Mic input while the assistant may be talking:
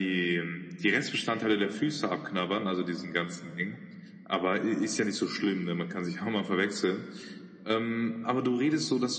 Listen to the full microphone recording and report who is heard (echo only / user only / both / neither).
echo only